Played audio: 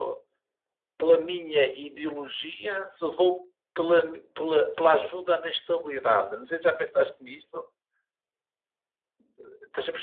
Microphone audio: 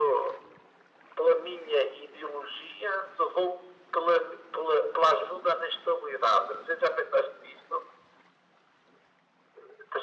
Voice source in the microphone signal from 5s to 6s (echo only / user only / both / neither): echo only